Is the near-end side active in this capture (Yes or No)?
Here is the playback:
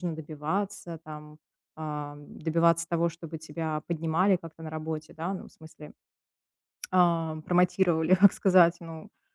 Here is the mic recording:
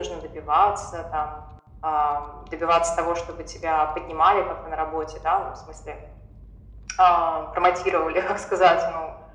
No